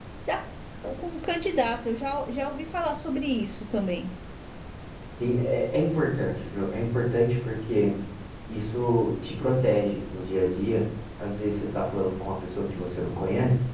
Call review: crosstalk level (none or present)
none